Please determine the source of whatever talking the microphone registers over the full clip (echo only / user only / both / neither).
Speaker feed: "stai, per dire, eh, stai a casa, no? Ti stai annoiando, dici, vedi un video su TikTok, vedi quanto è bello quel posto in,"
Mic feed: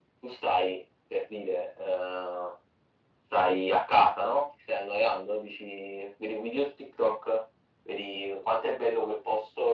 echo only